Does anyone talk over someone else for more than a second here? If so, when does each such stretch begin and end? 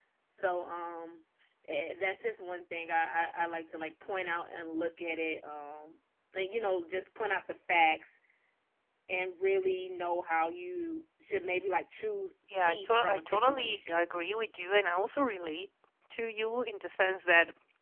12.6-14.0

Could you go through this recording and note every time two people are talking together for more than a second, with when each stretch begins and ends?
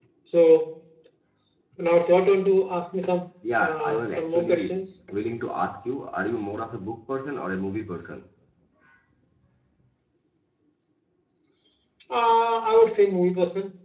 3.5-4.8

